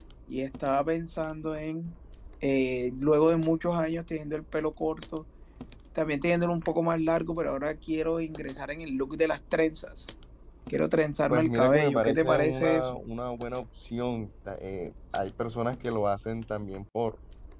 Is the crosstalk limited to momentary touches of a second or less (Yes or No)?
No